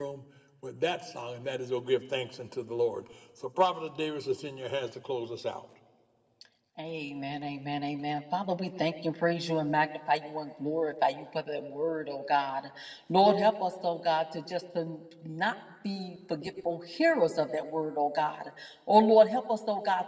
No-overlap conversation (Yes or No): Yes